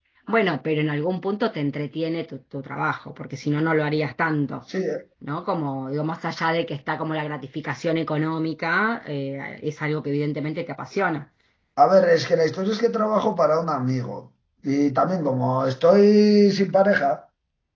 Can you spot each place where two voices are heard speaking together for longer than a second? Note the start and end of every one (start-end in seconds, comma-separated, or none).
none